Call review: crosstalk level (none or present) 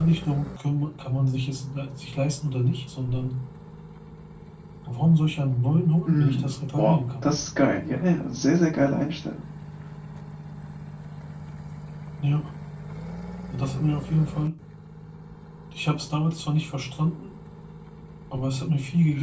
present